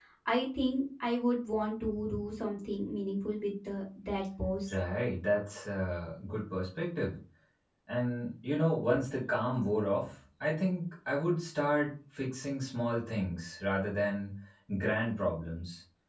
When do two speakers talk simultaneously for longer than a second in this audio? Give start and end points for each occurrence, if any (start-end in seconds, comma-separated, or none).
none